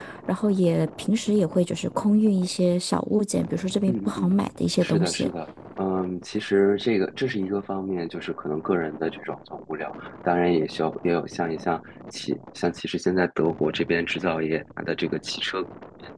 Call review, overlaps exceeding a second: none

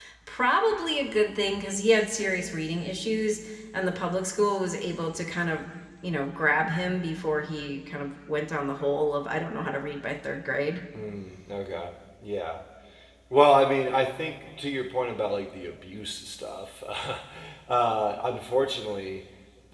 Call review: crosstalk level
none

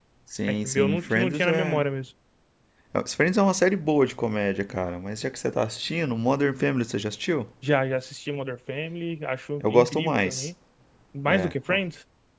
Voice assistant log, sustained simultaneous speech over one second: present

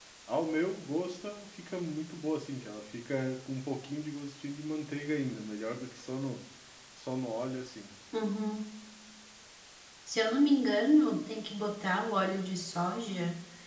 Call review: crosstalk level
none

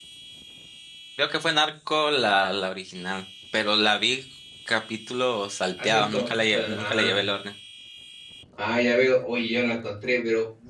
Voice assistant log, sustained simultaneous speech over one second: present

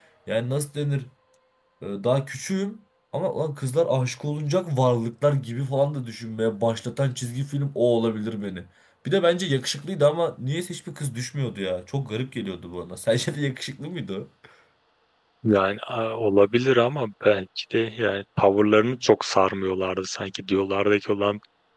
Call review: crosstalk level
none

